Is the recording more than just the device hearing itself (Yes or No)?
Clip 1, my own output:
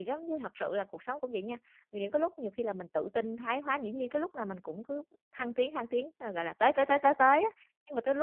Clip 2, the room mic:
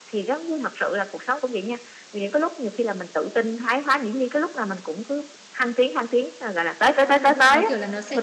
Yes